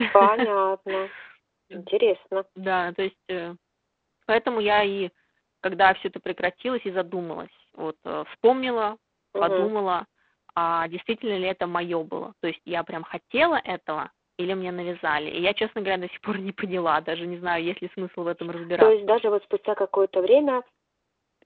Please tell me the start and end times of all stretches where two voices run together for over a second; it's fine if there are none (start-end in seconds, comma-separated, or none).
none